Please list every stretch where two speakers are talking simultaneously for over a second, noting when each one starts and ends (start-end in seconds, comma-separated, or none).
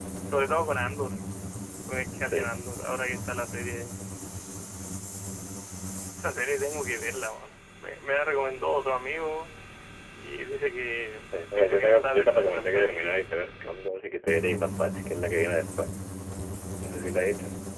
11.5-13.2